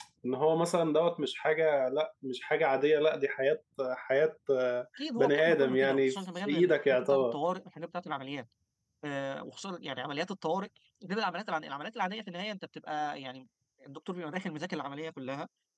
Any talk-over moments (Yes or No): Yes